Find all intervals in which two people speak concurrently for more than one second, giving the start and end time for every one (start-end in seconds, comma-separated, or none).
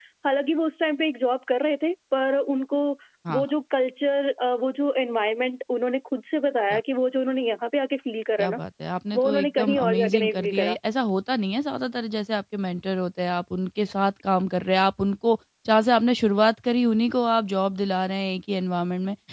9.1-10.8